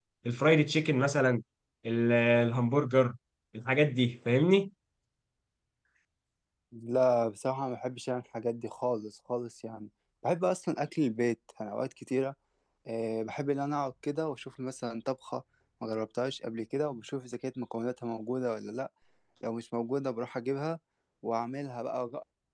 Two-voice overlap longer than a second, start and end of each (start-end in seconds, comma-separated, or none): none